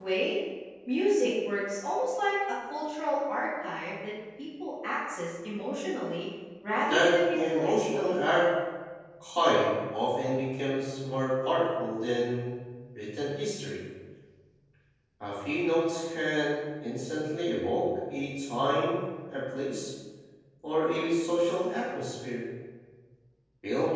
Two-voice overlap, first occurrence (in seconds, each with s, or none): 6.9 s